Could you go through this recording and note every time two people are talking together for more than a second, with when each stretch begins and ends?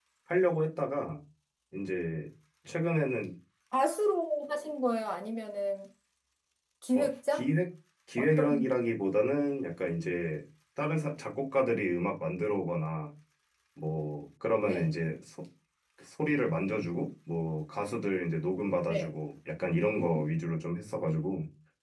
none

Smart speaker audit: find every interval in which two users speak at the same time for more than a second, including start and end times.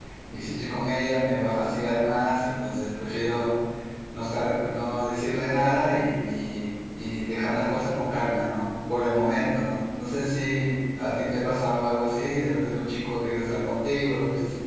none

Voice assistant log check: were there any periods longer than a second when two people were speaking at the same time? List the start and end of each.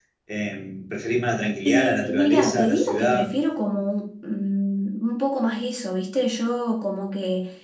1.6-3.3

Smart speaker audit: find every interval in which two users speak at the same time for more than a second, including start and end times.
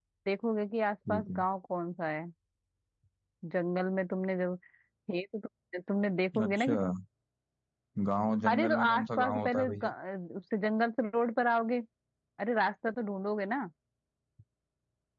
8.5-9.9

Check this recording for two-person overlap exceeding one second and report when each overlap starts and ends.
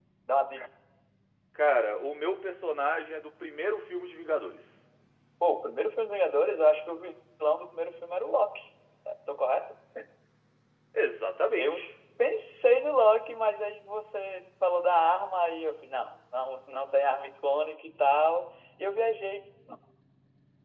none

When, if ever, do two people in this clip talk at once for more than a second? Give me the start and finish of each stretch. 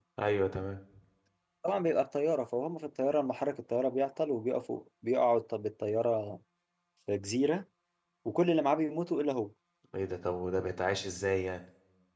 none

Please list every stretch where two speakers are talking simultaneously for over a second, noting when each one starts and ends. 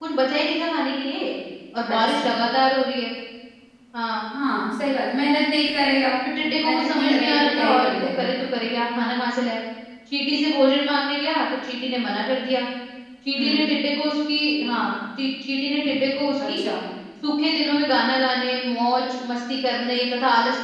6.6-8.3

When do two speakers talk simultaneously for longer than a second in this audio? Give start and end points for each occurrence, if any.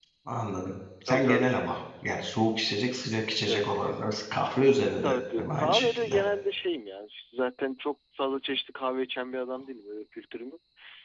5.0-6.2

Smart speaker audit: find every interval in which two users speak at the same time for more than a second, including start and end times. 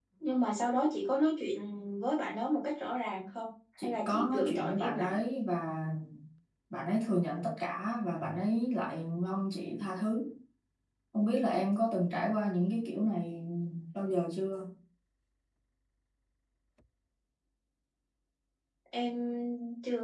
3.8-5.2

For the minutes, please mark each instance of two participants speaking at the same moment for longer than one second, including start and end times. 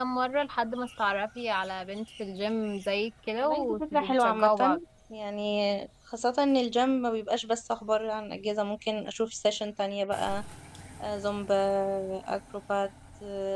3.4-4.8

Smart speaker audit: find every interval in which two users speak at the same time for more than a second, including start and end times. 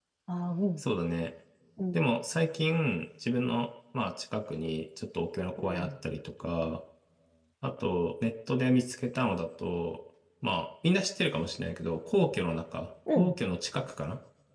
none

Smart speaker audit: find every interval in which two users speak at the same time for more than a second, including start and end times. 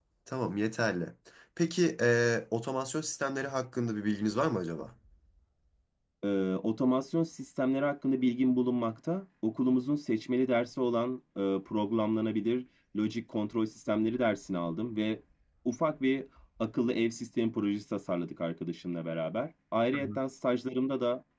none

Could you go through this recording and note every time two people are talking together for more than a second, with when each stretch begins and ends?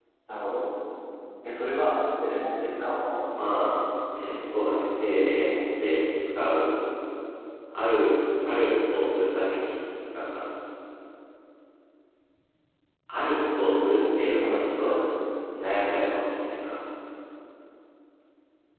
13.6-15.0

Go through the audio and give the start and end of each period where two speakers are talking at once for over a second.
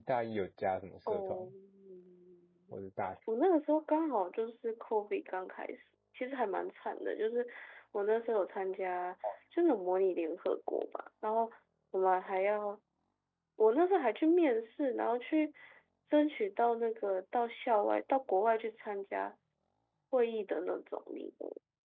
none

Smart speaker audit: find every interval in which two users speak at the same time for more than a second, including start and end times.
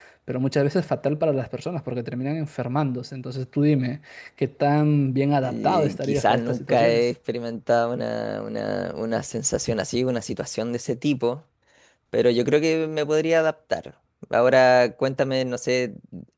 5.4-7.0

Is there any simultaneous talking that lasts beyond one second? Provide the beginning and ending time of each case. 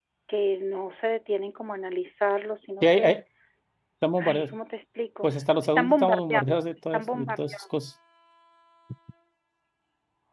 5.2-7.6

